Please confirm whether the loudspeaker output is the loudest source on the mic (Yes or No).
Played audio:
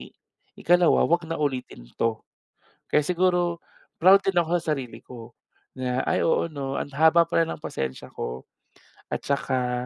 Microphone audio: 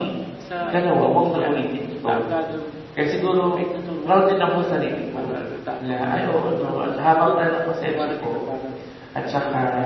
Yes